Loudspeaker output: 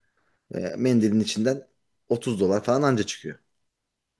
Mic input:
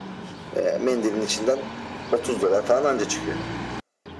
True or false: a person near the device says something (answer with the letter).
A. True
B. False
B